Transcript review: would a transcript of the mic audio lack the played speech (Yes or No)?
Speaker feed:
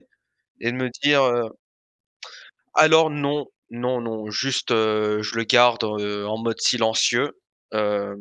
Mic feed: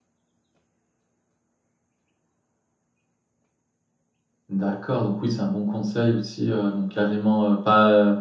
Yes